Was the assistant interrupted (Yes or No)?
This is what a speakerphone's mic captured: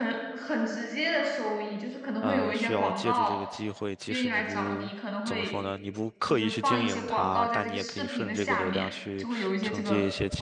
Yes